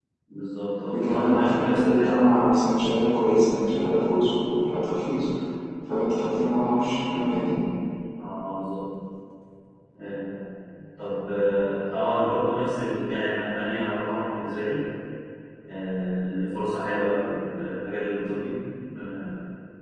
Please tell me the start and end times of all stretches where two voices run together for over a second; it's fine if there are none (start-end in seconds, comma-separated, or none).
1.0-2.3